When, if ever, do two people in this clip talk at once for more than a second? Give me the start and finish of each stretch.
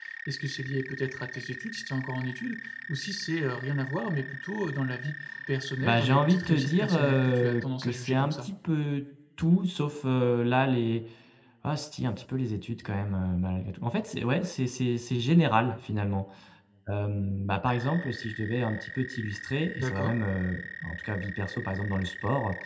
5.8-8.5

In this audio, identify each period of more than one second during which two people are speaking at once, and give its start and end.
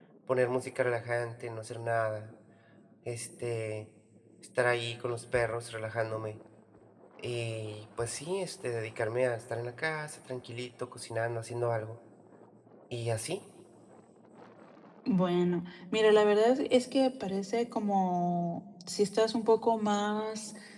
none

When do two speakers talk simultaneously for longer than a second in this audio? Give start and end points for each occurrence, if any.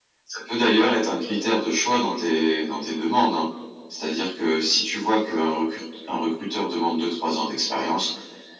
none

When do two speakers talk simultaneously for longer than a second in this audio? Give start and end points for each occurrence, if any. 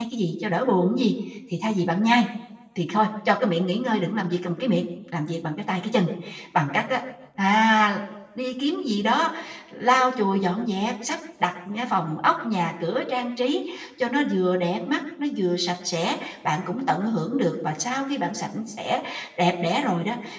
none

